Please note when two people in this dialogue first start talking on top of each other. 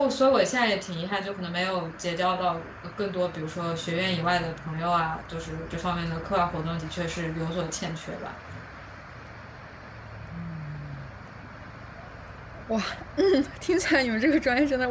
none

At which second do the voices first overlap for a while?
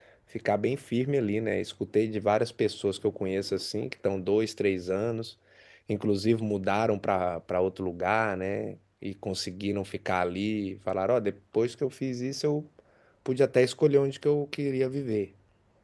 none

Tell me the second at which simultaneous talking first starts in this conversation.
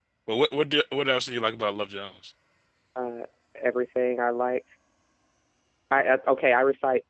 none

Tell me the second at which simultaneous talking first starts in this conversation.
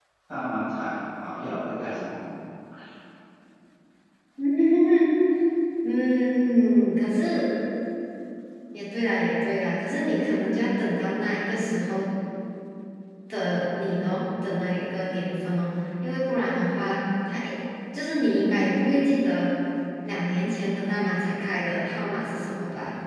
none

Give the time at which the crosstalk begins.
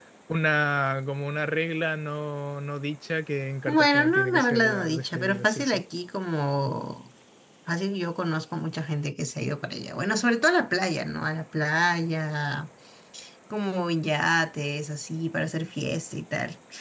4 s

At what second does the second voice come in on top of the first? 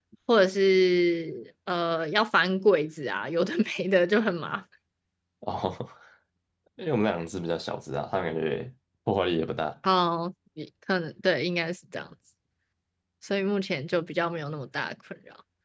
none

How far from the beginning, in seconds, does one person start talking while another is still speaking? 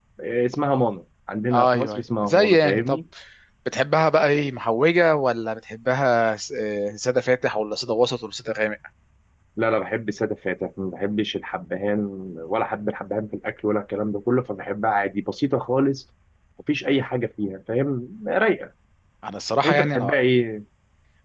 2 s

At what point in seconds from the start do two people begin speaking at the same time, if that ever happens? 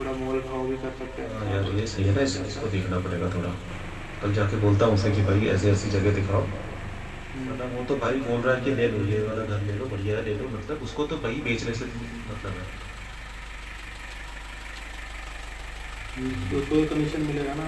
1 s

